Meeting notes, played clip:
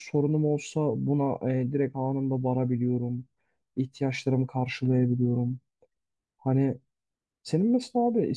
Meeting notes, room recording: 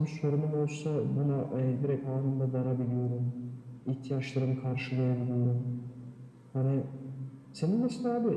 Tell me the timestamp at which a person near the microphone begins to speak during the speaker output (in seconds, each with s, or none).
none